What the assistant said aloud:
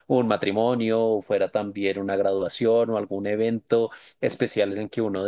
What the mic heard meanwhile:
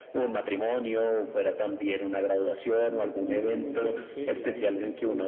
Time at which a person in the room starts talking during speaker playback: 2.9 s

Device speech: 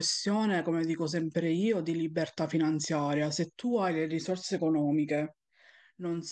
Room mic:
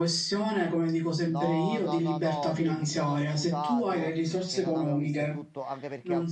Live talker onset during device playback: 1.3 s

